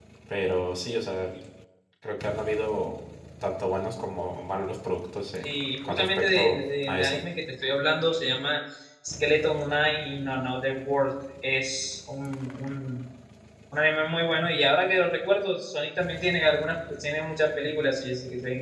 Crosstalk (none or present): present